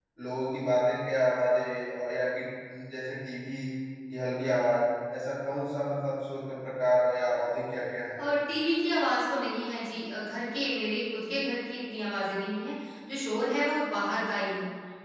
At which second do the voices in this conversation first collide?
none

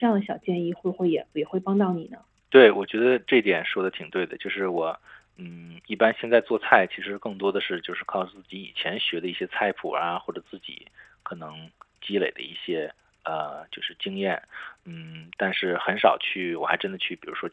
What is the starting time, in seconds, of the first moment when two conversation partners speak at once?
none

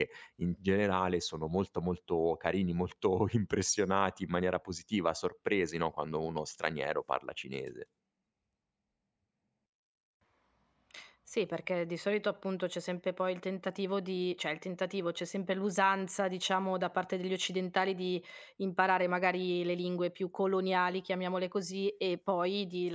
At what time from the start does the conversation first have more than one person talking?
none

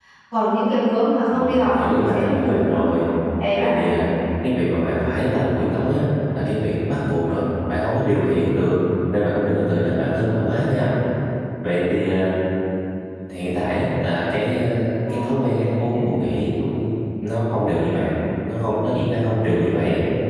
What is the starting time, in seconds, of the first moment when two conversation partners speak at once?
1.3 s

